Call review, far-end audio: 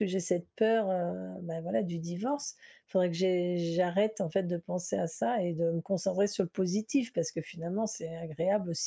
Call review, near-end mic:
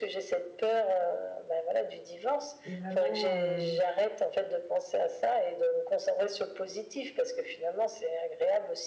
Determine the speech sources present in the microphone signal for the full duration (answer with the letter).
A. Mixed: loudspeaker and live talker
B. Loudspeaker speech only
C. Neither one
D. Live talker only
A